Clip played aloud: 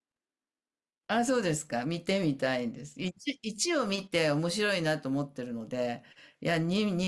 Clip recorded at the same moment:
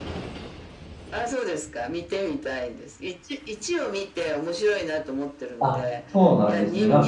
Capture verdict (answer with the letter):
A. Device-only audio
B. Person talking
B